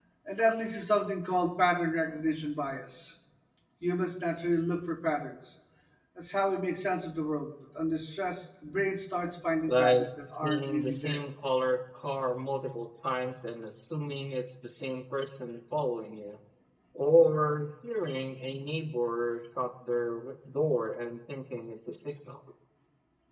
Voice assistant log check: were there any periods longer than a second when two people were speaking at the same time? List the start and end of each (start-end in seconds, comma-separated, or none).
9.6-11.2